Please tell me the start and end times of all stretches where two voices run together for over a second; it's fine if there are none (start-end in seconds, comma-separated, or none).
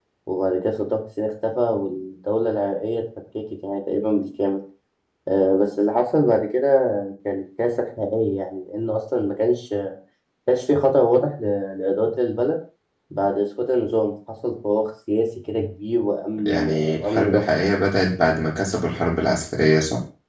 16.4-17.7